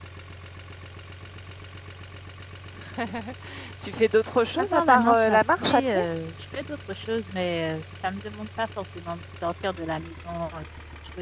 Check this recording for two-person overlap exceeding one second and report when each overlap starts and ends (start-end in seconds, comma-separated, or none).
4.6-6.0